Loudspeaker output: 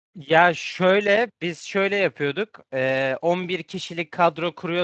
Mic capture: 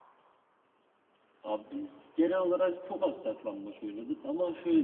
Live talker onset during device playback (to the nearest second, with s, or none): 1 s